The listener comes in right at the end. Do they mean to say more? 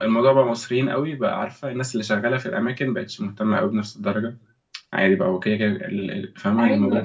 Yes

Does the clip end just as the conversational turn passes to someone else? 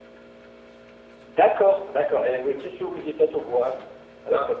Yes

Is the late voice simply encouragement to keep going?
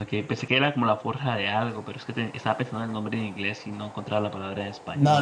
No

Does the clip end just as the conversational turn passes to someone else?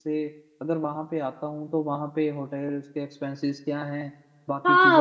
Yes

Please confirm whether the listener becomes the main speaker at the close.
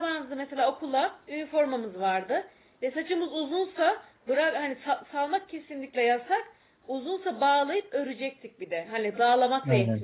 No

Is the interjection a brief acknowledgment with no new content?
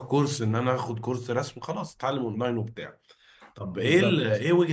Yes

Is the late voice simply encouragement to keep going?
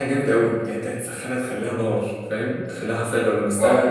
Yes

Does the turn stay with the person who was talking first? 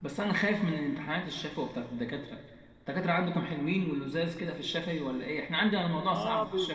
No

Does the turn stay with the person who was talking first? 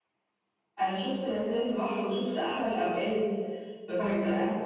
Yes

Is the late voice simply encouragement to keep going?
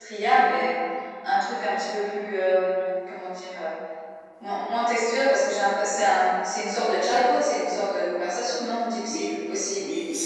No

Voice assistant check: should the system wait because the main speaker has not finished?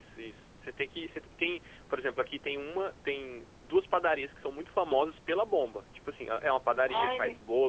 Yes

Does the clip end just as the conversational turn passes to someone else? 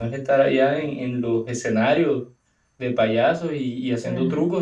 Yes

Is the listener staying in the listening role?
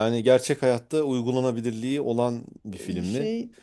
Yes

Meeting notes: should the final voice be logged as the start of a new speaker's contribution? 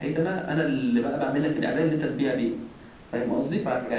No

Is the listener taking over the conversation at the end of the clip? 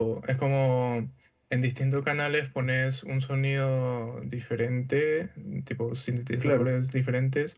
No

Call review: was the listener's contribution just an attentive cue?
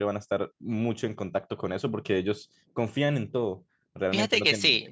No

